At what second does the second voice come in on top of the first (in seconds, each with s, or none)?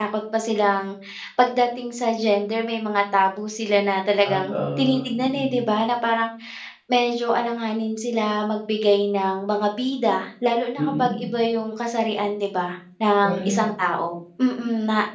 4.2 s